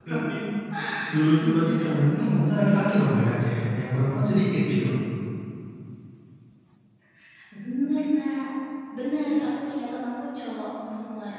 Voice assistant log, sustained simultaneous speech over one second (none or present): present